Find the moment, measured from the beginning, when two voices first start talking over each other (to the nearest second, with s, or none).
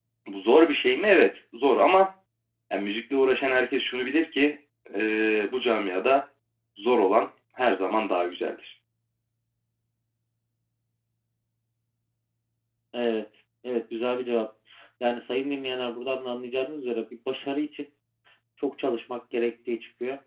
none